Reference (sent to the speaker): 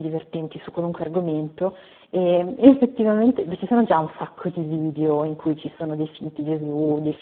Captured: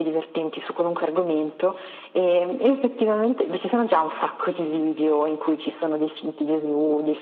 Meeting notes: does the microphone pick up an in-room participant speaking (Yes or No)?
No